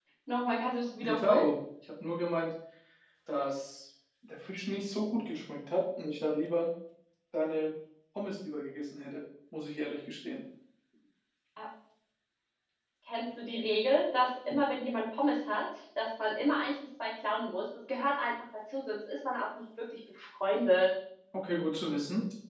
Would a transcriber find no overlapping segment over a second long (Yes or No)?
Yes